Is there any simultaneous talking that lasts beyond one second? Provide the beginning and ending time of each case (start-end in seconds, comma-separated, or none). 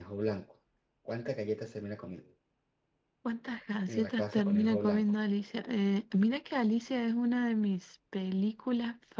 3.9-5.1